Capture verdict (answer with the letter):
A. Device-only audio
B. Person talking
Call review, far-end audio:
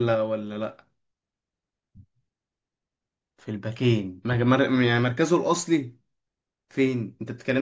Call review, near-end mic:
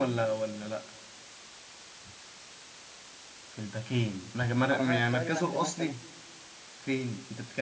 B